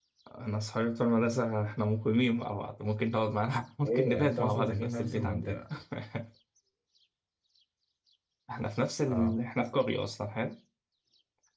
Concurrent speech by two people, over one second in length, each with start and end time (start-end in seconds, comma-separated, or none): 3.8-5.6